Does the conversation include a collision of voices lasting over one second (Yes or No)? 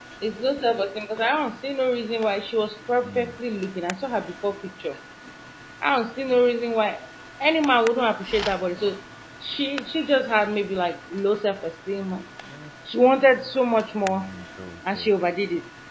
No